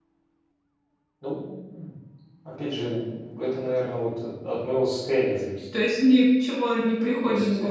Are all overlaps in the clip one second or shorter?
Yes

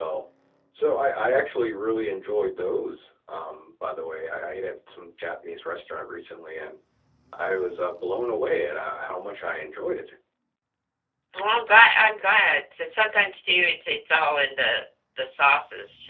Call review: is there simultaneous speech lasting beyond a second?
No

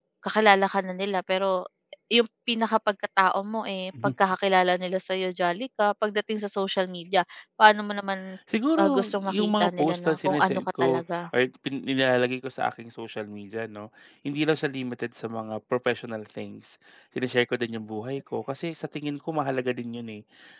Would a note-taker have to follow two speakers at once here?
Yes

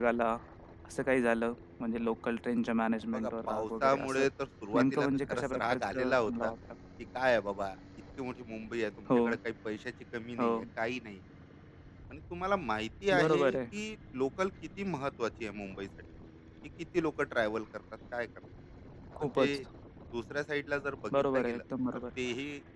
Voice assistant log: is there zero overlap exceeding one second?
No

